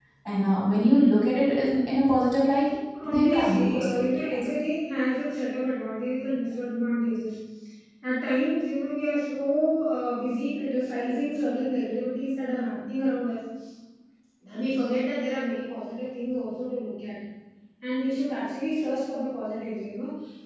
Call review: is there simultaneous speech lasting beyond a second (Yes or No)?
Yes